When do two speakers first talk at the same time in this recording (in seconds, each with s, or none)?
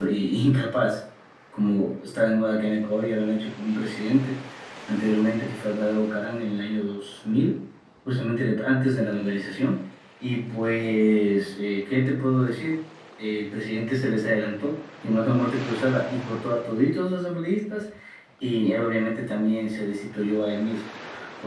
none